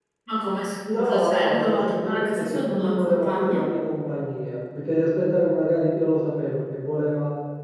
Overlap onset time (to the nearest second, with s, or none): 1 s